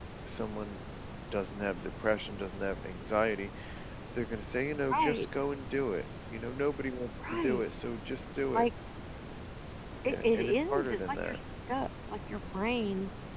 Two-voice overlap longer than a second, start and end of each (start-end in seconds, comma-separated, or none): 10.1-11.4